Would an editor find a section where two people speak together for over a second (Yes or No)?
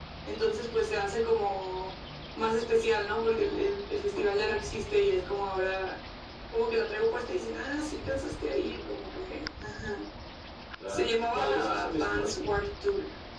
Yes